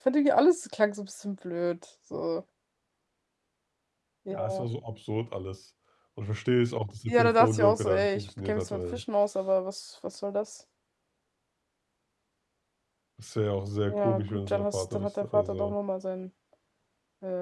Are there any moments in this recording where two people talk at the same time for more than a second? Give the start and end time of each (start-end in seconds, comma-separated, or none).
7.1-9.0, 13.9-15.8